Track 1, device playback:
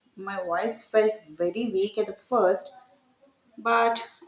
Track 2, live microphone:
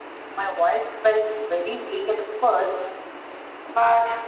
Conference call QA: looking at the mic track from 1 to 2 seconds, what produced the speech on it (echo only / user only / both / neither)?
echo only